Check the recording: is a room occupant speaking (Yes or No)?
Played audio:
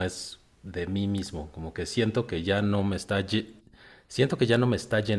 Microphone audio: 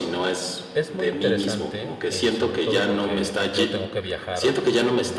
Yes